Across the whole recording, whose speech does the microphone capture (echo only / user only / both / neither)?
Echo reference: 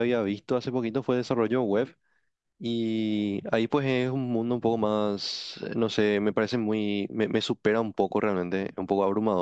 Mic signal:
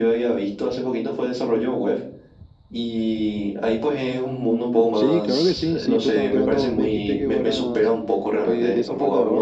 both